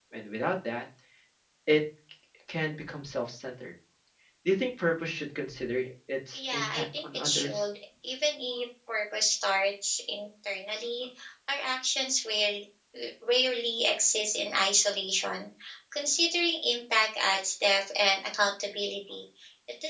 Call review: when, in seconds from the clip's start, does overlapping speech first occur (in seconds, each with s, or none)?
6.3 s